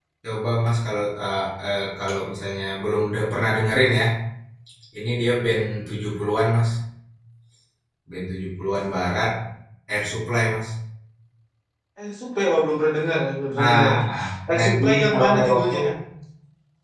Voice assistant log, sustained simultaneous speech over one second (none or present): present